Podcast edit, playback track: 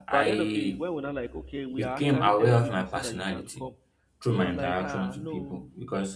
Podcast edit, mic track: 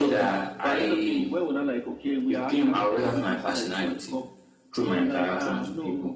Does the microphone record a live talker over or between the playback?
No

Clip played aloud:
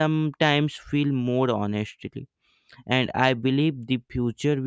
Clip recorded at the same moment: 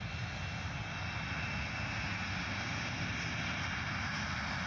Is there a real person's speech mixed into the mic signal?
No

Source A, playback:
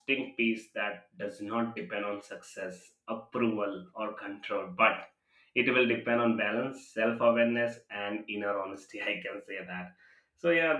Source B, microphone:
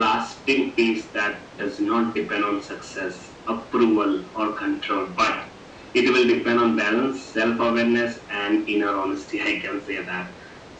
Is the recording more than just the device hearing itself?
No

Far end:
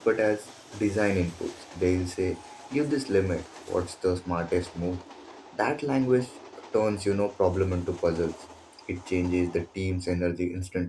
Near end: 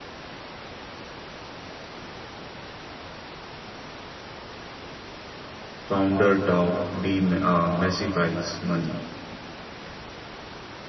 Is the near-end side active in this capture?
Yes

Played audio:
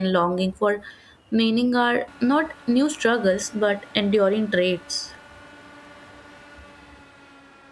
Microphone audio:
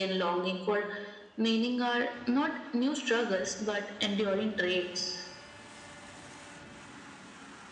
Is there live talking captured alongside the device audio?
No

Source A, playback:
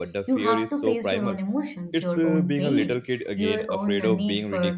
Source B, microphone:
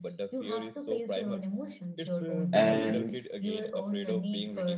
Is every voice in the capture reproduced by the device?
No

